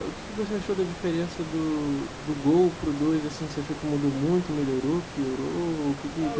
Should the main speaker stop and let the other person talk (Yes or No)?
Yes